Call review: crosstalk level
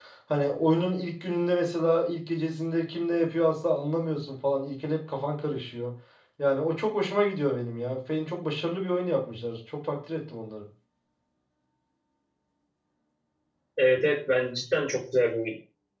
none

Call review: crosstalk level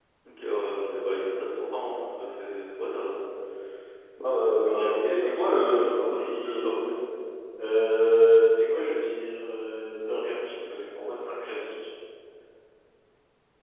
present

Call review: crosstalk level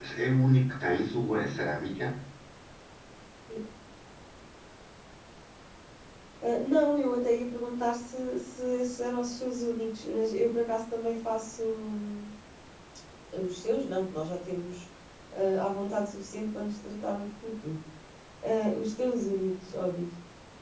none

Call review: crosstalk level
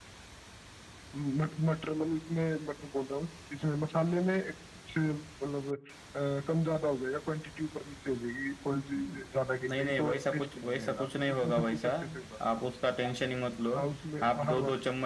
present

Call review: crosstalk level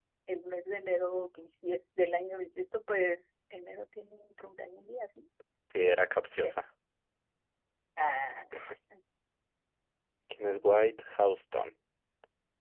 none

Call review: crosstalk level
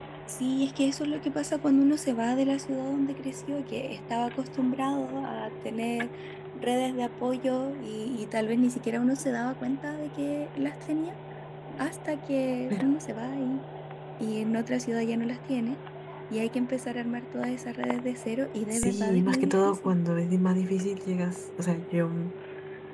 present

